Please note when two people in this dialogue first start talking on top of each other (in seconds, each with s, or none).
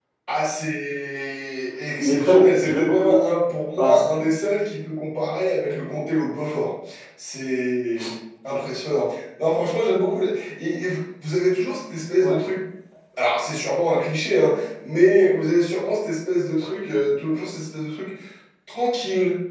2.0 s